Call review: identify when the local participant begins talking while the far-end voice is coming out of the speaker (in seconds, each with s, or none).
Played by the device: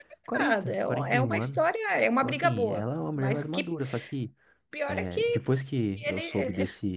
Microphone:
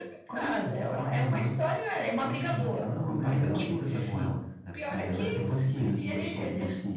3.1 s